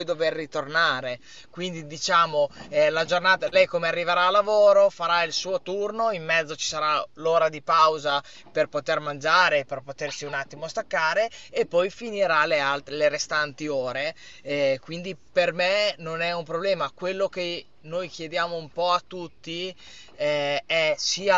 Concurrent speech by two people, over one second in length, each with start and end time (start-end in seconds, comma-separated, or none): none